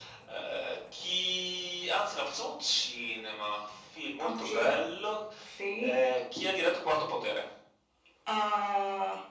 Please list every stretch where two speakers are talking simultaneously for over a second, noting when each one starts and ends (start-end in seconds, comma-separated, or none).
none